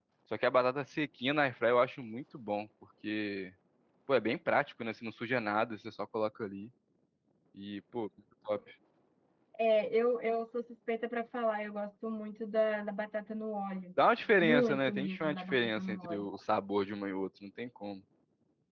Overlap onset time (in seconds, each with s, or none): 14.4 s